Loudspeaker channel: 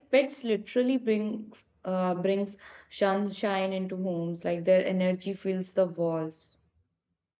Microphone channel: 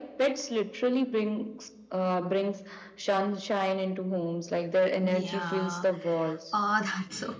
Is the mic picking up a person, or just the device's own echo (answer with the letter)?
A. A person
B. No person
A